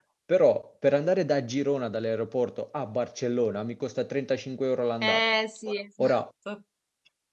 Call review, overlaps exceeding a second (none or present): none